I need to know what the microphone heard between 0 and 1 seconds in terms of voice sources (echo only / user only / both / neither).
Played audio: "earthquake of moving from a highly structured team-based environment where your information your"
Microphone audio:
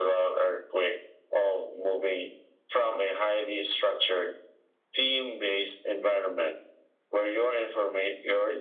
echo only